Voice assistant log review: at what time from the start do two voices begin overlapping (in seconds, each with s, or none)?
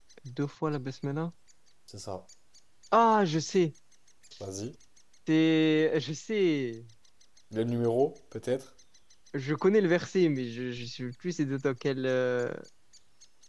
none